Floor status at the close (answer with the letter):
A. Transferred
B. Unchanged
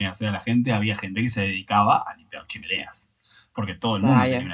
B